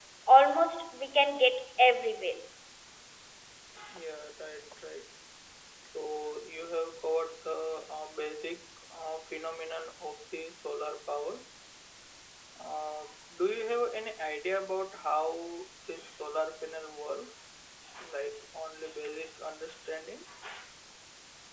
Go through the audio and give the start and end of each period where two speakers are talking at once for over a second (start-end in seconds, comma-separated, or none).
none